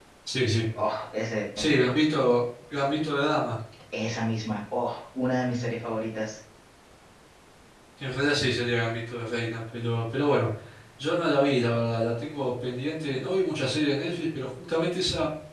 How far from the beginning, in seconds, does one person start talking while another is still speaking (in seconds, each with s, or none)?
none